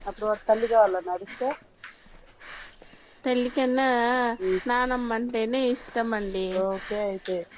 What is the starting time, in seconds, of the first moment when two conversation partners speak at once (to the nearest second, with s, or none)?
none